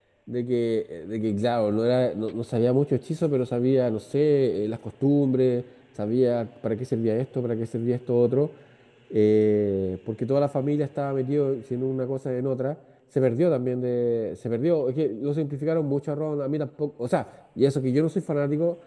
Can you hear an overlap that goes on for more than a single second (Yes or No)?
No